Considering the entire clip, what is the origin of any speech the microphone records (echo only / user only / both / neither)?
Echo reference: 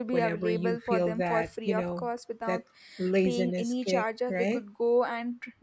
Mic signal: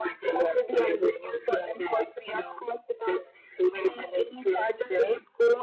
echo only